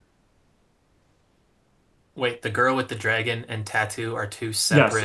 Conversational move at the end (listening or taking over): taking over